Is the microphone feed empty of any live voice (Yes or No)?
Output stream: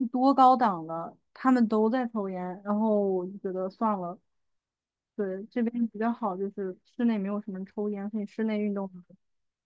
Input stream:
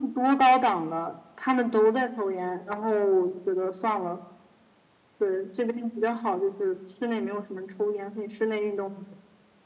Yes